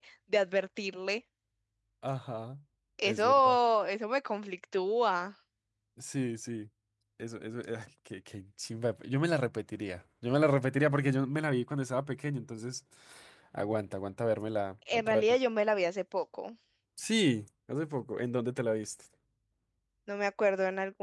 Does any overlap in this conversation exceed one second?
No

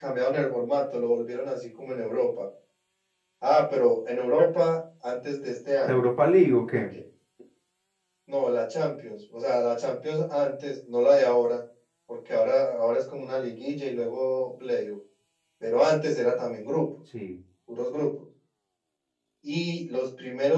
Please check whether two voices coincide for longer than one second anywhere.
No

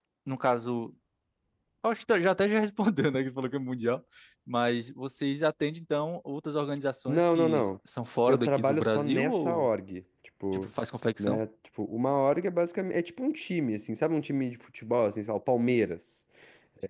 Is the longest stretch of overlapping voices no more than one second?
No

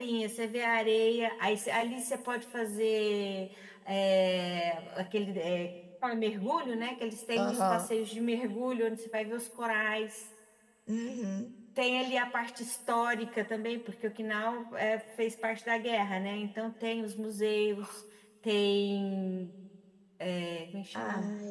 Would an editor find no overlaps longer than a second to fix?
Yes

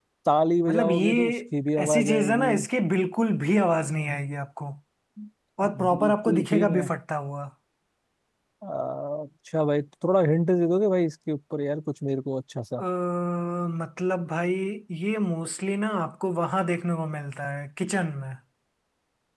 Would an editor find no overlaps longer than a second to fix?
No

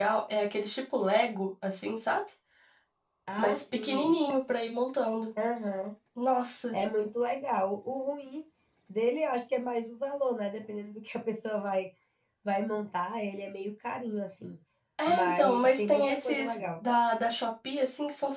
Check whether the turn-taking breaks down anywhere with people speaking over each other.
Yes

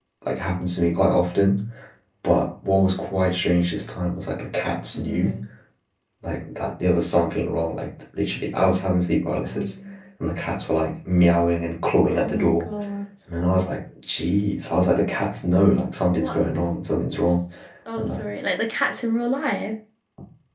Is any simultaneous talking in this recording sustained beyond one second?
No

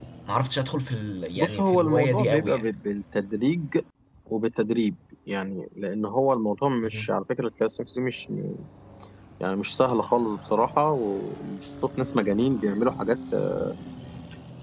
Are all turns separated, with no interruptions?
No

